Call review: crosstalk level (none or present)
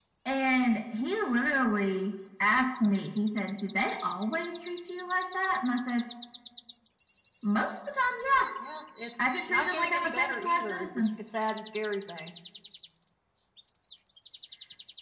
present